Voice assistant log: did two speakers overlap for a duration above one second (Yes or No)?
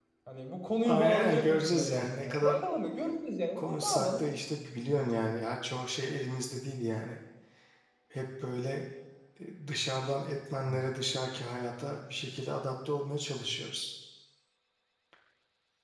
Yes